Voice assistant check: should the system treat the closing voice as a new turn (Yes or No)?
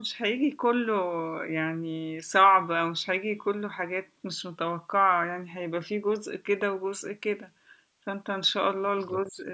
No